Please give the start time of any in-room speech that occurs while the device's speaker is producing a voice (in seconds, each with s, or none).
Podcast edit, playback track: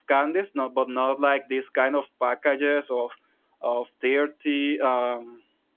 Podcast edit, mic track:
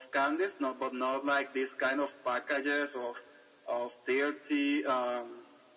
none